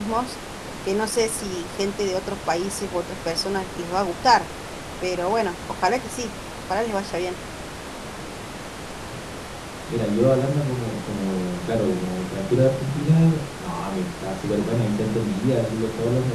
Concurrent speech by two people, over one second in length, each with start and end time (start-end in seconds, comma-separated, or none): none